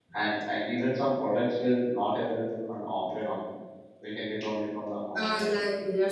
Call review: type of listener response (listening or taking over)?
taking over